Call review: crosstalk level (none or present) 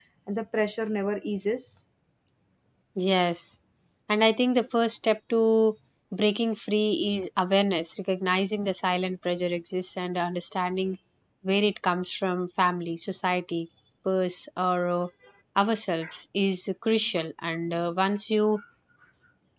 none